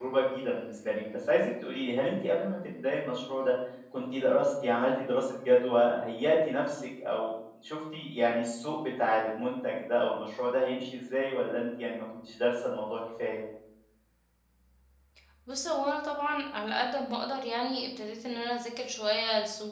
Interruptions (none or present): none